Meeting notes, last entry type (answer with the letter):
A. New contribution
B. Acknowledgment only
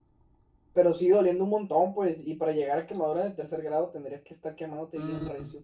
A